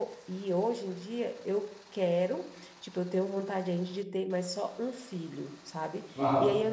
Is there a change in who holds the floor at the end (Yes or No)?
No